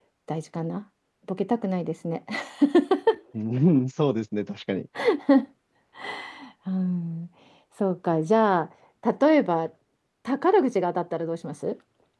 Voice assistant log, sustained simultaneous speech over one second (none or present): none